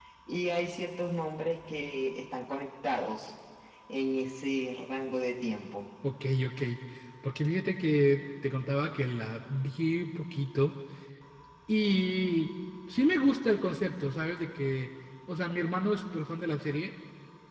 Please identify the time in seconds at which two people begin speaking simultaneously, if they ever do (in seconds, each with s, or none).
none